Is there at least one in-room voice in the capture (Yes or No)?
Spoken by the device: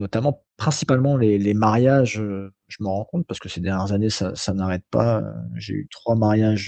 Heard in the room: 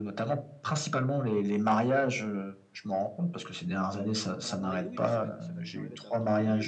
Yes